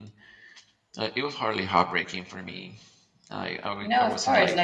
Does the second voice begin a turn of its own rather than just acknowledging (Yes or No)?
Yes